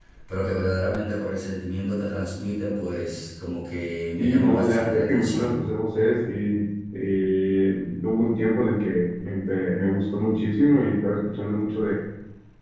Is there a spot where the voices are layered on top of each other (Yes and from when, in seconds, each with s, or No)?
Yes, from 4.2 s